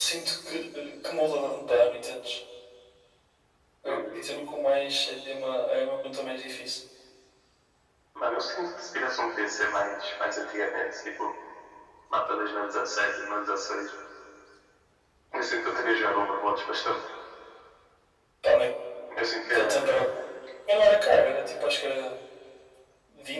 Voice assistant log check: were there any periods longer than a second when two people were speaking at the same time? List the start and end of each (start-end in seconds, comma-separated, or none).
none